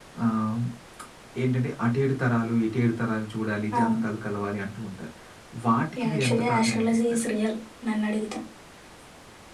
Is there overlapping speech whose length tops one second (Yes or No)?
Yes